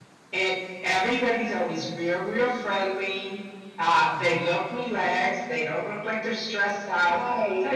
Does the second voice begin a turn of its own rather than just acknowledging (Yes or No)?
No